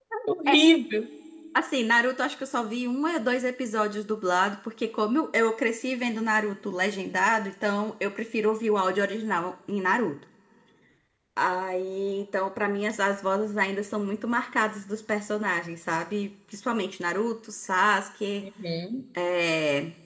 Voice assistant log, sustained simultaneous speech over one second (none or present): none